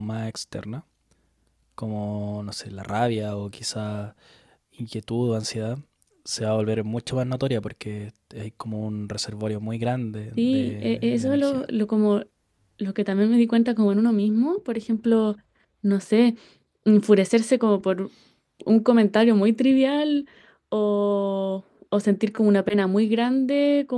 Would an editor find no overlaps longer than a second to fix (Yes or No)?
No